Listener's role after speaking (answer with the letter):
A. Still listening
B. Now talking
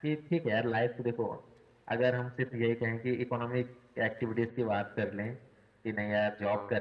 A